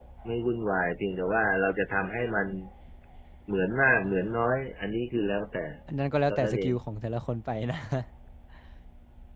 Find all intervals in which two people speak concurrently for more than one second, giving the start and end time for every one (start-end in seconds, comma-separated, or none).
none